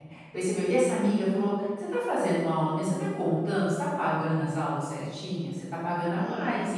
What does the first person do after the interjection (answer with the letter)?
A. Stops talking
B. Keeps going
B